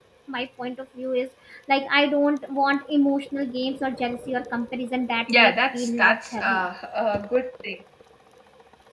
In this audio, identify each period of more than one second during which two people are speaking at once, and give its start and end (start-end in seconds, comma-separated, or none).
5.3-6.7